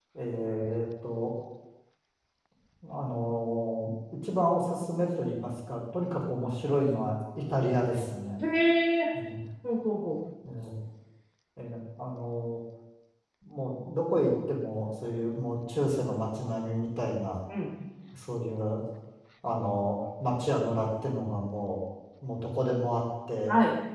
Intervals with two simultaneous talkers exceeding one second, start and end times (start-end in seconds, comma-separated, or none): none